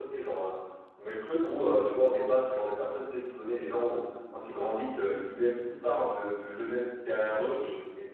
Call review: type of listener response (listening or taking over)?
listening